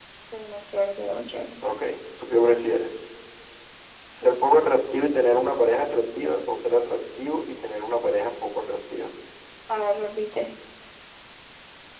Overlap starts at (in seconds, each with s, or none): none